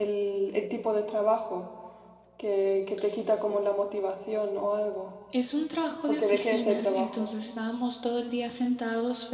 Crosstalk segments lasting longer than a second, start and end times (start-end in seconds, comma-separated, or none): 6.1-7.3